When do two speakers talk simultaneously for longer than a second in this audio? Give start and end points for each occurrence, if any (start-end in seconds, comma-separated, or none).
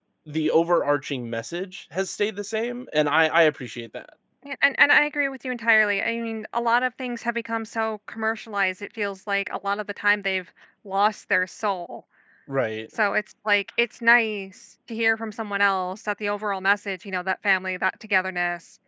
none